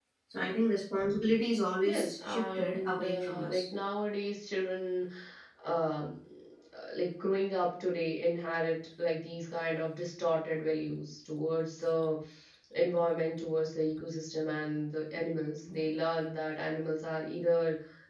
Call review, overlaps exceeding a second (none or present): present